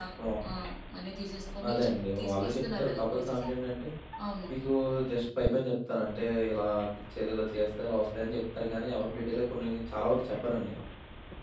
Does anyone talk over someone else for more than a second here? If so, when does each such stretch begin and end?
1.7-3.4

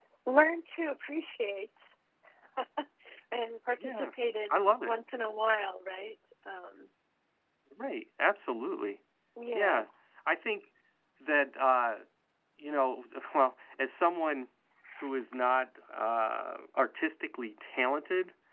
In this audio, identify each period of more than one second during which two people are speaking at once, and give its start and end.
none

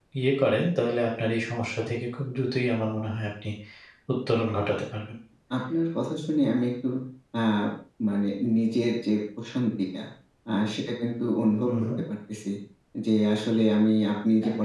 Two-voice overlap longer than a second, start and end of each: none

